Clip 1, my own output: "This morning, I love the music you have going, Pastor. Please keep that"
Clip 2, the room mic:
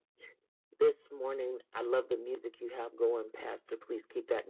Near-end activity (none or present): none